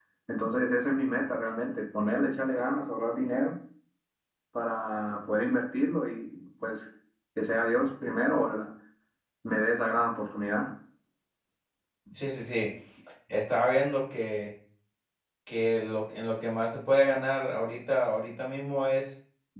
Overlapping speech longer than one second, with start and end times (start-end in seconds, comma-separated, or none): none